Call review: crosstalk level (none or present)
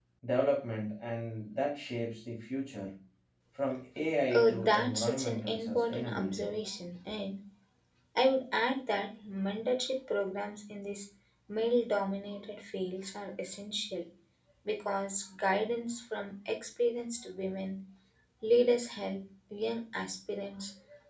present